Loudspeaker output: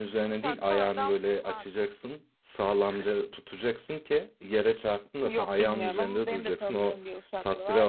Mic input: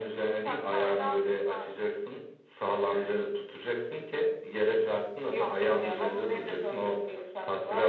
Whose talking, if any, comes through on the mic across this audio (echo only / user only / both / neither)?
echo only